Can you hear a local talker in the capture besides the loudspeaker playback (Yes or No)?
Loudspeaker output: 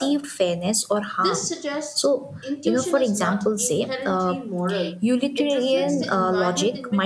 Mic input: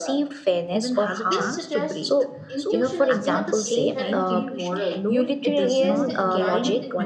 Yes